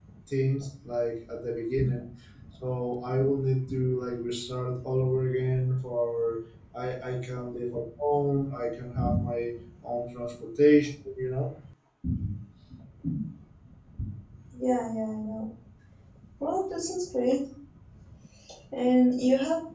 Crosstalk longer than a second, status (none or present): none